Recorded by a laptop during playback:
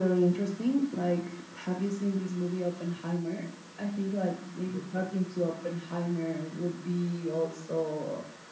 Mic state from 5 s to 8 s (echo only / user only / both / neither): echo only